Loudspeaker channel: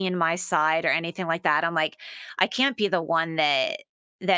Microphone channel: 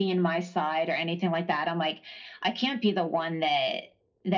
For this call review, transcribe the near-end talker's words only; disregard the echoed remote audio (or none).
none